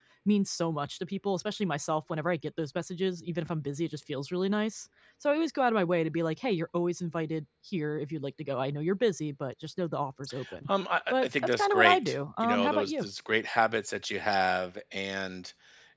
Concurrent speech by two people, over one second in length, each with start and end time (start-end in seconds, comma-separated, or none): 11.1-13.1